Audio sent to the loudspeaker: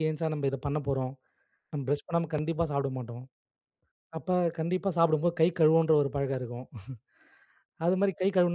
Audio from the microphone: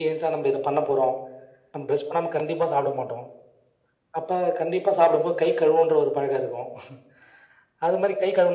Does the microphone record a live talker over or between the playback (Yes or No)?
No